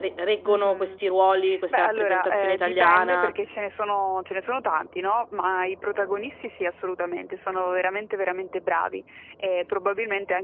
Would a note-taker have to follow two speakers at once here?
Yes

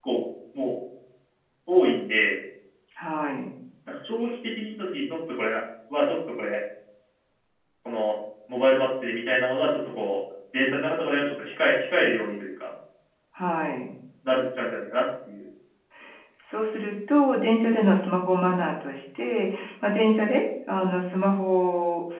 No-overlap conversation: Yes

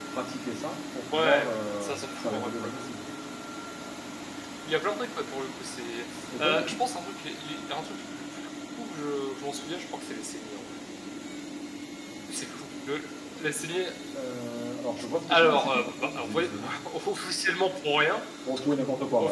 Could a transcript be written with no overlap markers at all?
No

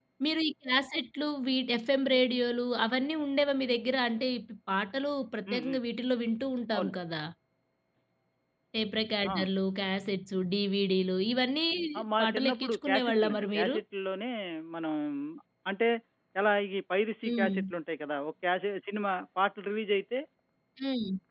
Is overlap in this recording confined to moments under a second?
No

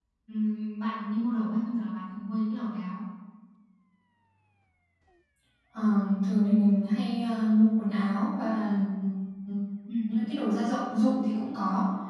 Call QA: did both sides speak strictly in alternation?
Yes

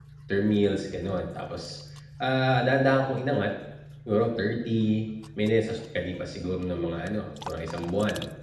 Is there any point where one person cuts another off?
No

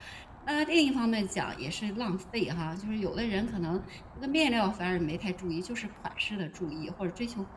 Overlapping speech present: No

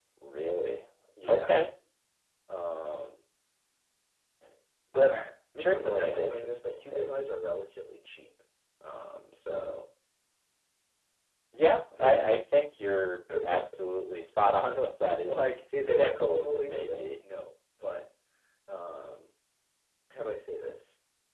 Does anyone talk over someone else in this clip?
Yes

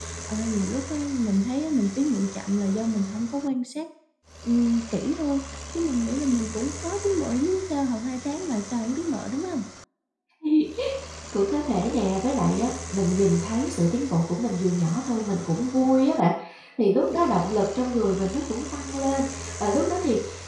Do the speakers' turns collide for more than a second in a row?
No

